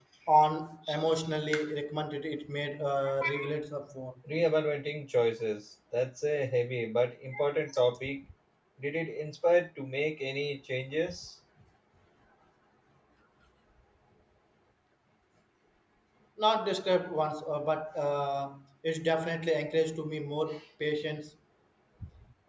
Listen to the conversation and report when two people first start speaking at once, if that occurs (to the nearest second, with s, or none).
none